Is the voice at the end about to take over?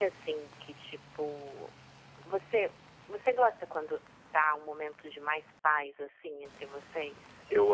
Yes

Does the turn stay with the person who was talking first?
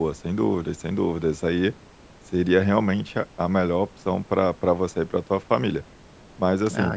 Yes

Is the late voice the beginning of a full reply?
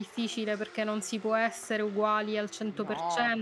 No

